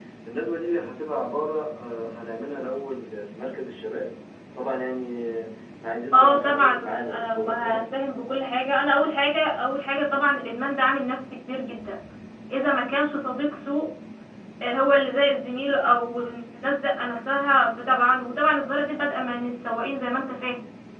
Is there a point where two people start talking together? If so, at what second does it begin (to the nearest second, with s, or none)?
6 s